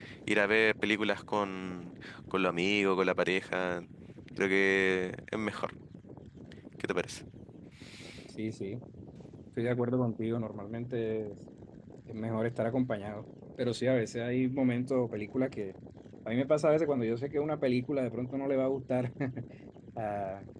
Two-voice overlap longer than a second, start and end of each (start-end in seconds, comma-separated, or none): none